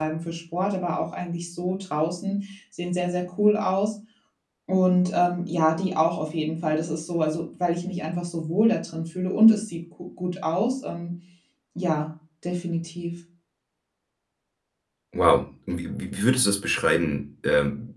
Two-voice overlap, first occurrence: none

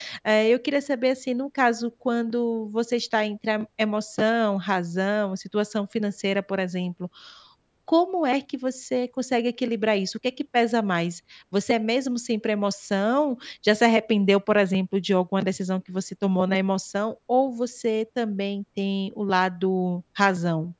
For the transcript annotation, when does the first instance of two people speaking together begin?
none

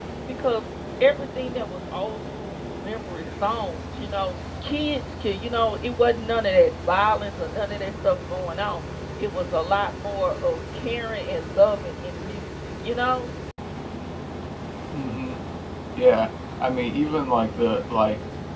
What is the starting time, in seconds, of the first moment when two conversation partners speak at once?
none

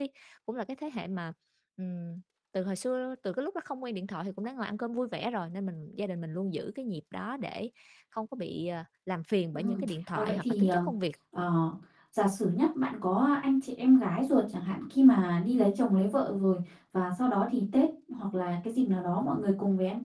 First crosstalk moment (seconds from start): 9.5 s

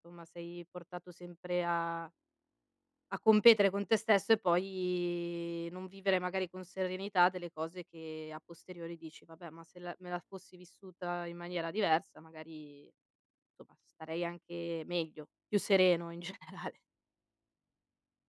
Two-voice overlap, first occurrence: none

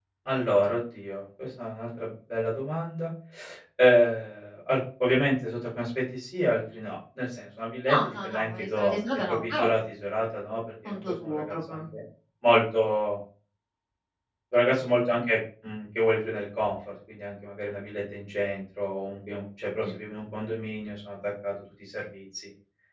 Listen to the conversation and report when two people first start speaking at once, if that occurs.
7.9 s

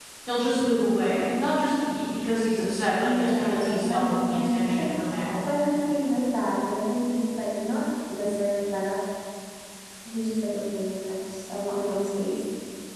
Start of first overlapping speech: 3.0 s

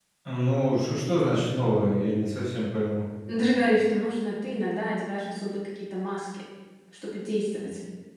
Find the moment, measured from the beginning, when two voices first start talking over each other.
none

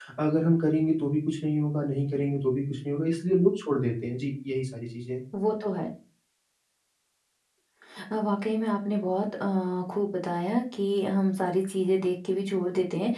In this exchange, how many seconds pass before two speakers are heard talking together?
none

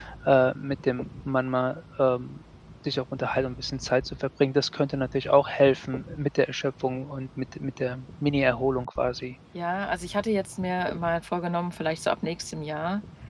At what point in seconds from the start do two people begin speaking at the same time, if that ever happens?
none

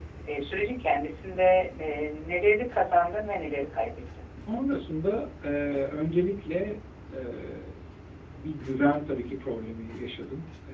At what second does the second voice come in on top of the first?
none

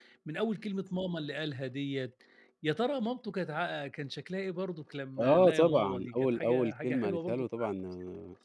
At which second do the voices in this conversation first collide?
5.2 s

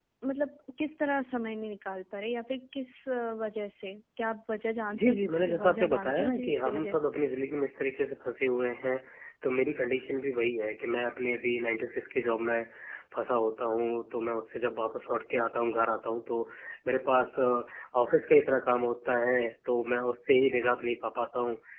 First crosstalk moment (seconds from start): 4.9 s

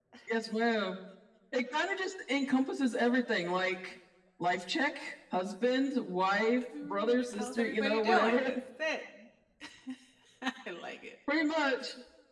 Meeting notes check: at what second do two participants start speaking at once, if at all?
6.7 s

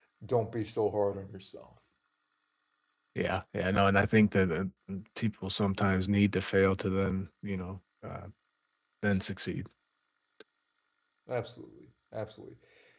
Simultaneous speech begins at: none

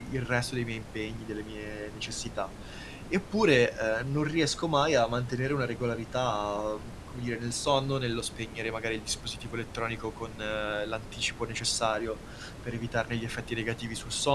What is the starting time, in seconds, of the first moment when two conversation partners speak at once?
none

